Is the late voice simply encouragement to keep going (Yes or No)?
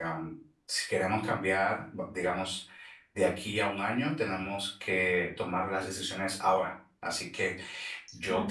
Yes